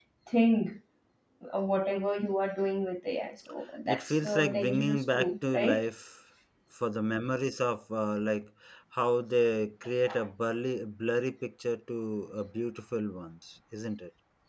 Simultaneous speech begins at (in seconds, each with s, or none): 3.9 s